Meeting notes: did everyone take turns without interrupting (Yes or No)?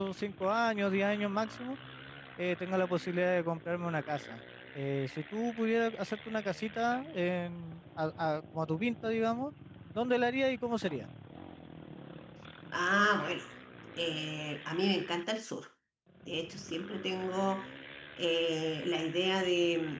Yes